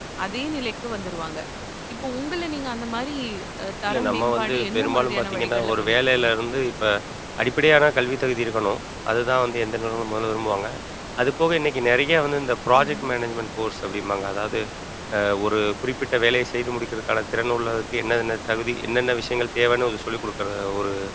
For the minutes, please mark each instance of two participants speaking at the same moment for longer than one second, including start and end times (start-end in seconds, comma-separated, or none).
3.9-6.3